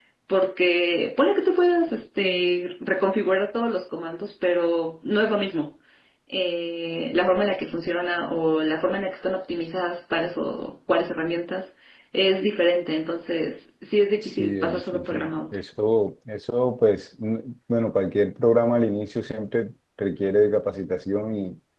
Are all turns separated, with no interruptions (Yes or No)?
No